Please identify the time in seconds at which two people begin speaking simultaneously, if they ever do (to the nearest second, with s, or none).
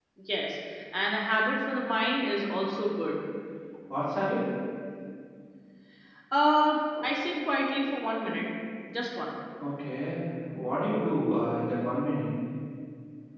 none